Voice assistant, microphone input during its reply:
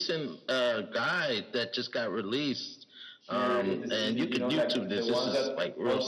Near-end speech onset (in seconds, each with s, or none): 3.2 s